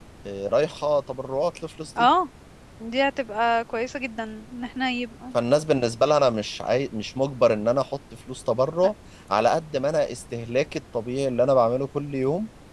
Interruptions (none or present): none